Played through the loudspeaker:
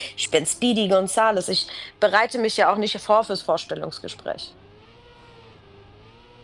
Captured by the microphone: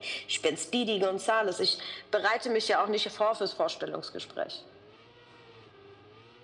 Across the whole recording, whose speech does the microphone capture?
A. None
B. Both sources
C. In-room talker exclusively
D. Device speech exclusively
D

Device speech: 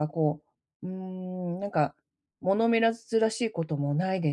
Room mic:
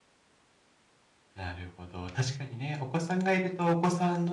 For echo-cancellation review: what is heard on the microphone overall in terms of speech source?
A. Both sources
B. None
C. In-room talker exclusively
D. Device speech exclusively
C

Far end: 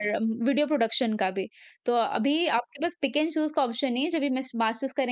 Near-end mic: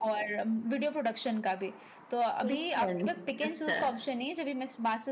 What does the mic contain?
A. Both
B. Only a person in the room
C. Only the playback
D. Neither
A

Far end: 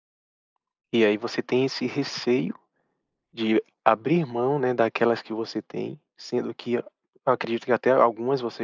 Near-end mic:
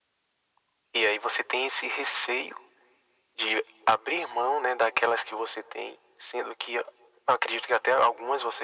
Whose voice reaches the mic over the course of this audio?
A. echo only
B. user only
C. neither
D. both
A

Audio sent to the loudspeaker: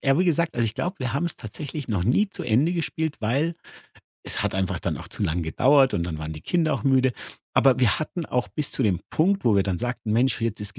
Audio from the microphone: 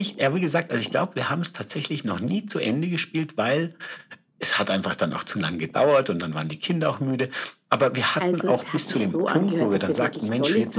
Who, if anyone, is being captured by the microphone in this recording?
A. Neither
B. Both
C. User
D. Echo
B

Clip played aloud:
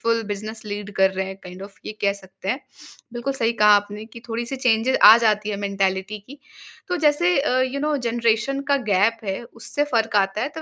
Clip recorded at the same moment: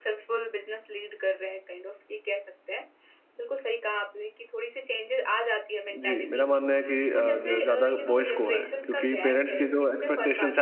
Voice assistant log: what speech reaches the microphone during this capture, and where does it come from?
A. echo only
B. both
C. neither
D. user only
B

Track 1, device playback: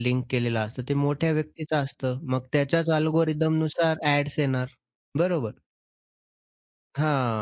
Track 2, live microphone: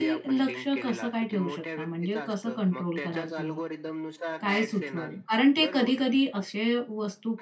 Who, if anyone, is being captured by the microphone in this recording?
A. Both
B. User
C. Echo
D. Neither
A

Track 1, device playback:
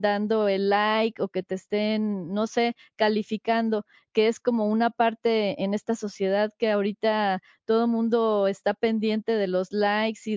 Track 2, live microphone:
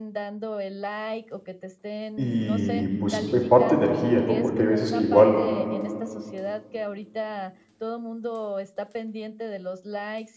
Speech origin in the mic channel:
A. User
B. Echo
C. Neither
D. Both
D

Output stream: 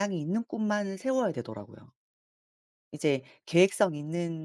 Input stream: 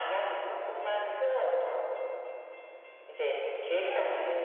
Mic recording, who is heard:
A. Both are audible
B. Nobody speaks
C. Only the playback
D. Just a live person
C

